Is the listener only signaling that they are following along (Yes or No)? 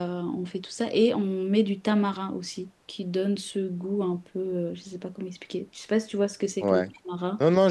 No